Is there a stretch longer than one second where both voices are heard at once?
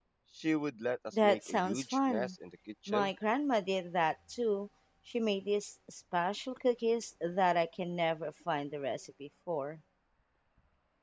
Yes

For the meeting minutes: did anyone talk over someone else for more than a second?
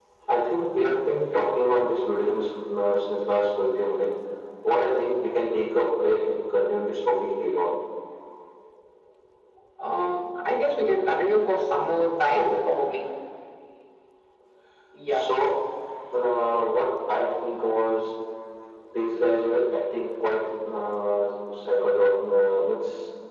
No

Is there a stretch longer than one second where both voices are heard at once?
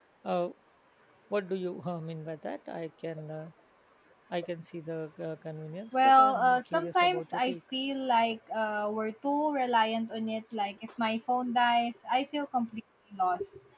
Yes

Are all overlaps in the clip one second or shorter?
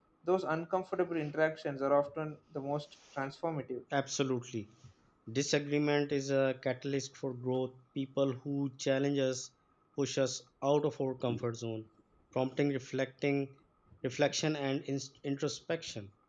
Yes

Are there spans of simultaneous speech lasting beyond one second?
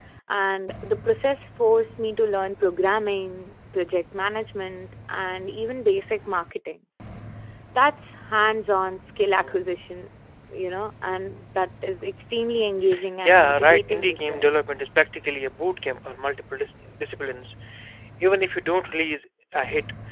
Yes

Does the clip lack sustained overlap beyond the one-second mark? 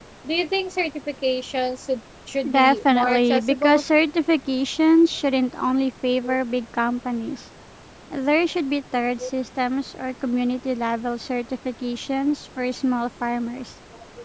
No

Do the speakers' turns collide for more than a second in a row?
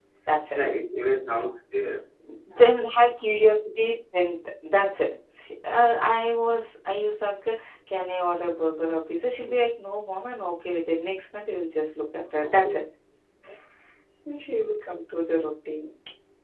No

